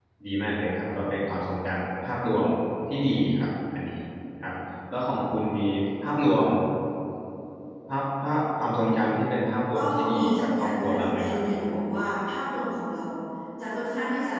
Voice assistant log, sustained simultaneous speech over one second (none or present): present